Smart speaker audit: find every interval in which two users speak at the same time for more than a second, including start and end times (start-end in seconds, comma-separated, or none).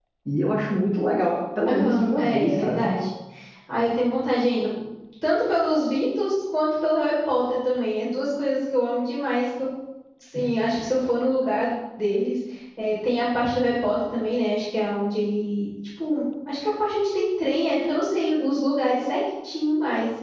1.6-2.9